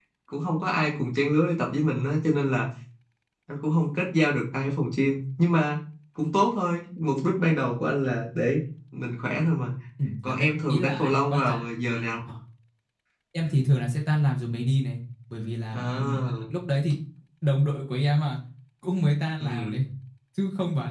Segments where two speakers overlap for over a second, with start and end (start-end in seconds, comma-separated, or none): 10.3-11.6